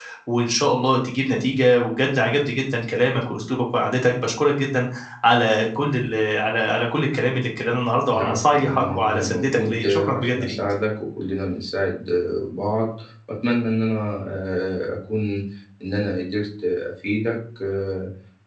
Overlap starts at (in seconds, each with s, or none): 8.1 s